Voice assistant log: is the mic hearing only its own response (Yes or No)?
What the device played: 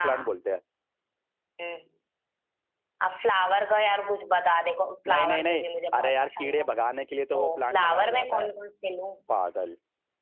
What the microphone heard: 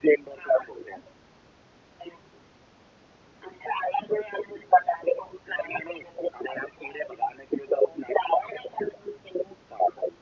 Yes